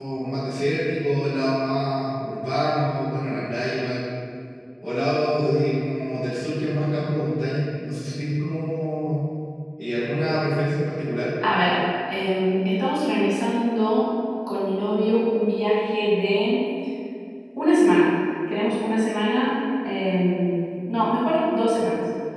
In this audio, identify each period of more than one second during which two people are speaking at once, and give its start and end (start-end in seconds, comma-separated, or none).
none